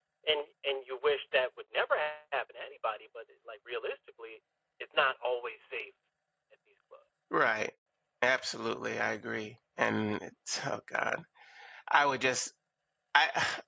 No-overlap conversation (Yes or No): Yes